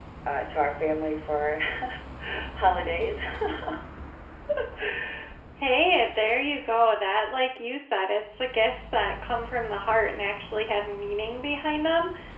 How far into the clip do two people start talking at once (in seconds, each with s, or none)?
none